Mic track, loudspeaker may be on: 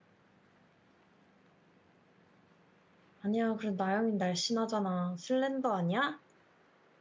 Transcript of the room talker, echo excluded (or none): 아니야 그래 나영이 날씬하잖아. 슬렌더 아니야?